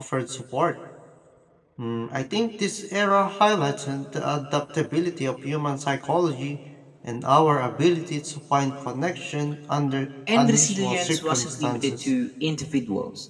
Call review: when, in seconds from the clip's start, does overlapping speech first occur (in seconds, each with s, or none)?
10.3 s